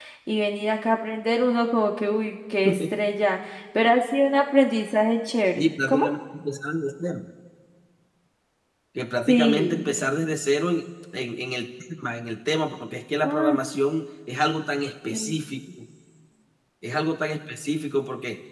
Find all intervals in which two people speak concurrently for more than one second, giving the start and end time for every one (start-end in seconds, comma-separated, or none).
none